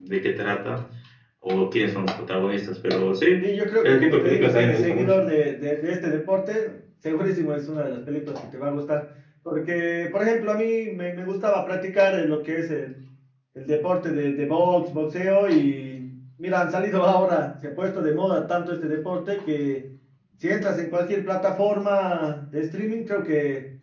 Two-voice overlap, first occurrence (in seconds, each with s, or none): 3.8 s